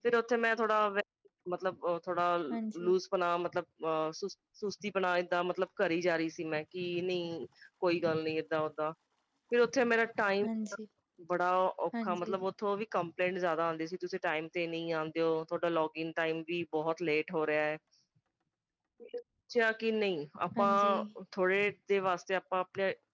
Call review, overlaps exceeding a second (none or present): none